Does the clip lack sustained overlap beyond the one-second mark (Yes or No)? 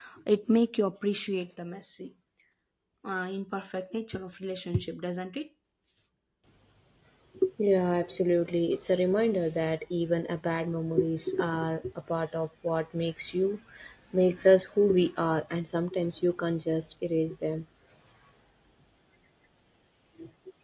Yes